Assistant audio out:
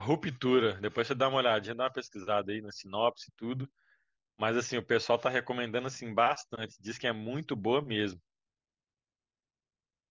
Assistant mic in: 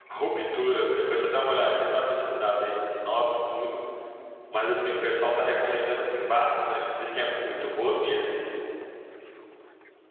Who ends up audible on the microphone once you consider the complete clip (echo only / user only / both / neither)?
echo only